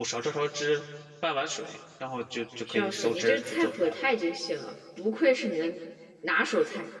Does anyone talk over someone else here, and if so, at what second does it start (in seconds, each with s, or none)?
2.7 s